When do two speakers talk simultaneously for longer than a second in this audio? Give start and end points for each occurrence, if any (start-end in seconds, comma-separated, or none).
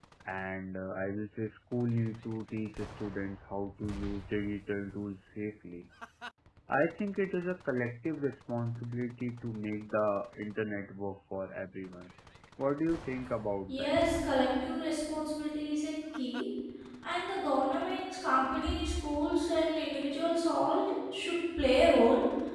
none